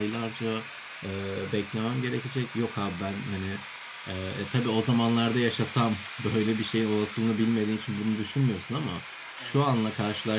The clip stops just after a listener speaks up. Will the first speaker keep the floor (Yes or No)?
Yes